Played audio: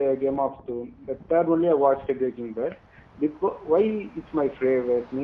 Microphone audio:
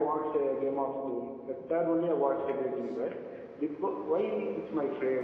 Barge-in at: none

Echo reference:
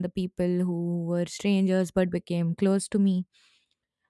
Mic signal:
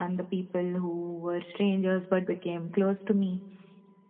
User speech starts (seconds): none

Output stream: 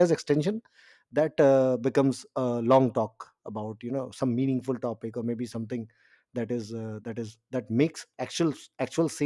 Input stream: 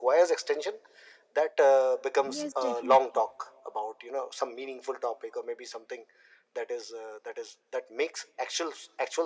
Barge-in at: 2 s

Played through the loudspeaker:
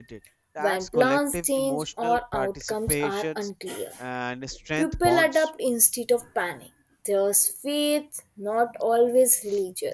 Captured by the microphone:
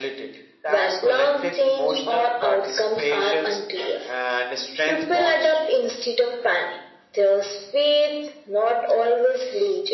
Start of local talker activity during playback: none

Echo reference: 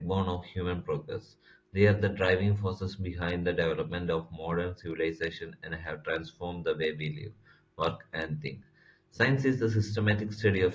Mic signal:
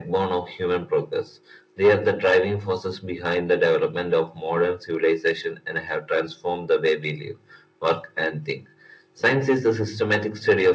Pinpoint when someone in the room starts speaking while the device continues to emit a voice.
none

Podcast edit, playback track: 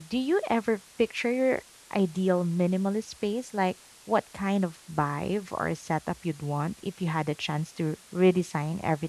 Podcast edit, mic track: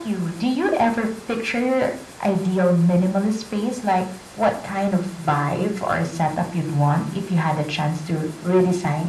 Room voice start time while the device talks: none

